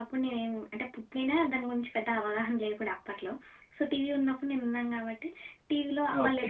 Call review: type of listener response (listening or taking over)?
listening